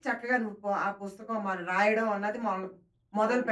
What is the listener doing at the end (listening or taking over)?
taking over